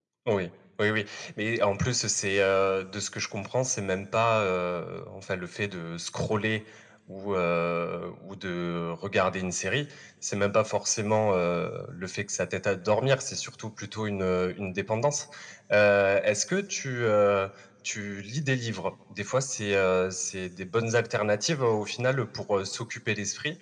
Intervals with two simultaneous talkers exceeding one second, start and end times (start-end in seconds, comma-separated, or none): none